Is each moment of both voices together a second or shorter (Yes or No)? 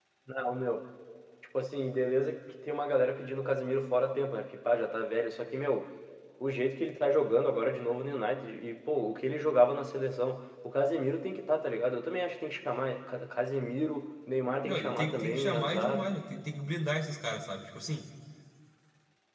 No